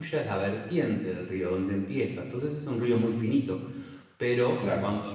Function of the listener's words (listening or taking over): listening